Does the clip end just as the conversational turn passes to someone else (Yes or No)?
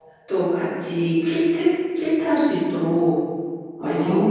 No